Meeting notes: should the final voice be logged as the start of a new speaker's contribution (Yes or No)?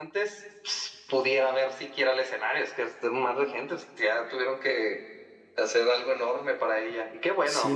Yes